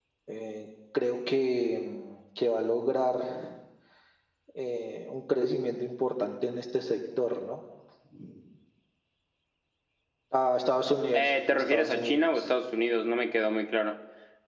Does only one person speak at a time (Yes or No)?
No